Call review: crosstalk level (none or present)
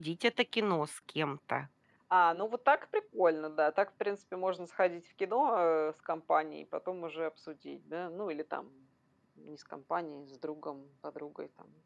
none